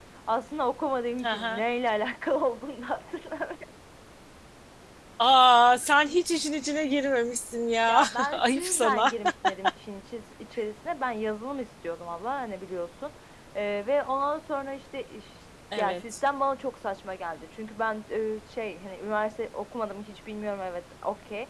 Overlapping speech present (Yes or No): Yes